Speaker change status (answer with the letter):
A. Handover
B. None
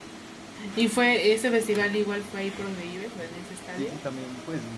A